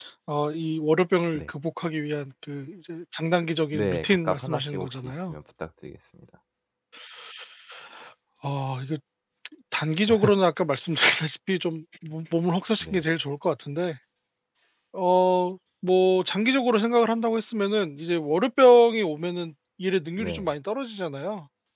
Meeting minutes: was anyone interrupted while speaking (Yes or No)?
Yes